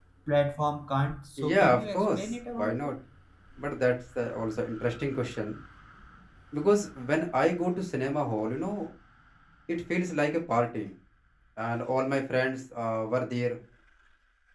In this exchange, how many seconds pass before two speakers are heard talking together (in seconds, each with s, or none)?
1.4 s